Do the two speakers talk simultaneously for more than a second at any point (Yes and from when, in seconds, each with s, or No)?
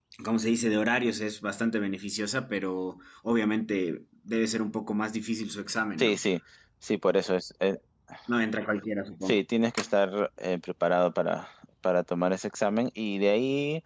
No